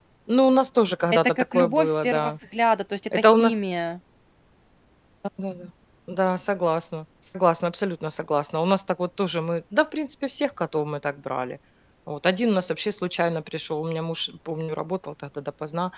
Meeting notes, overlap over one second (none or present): present